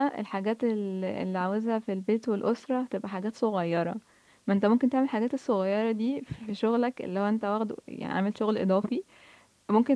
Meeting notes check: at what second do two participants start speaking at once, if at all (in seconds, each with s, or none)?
none